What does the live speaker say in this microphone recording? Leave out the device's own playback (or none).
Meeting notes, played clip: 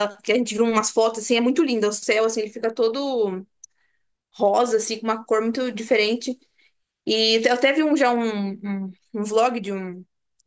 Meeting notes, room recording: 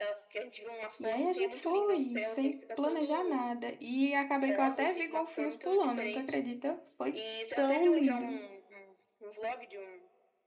E aí a gente foi, sem planejar nada. E acabei que eu até vi golfinhos pulando, tu acredita? Foi tão lindo.